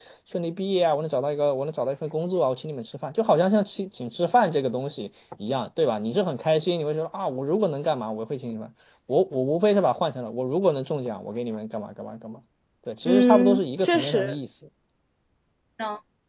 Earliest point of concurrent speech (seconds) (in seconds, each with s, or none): 13.1 s